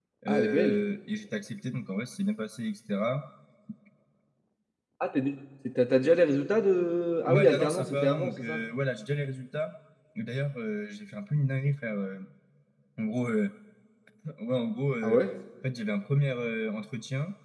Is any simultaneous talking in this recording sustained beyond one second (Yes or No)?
Yes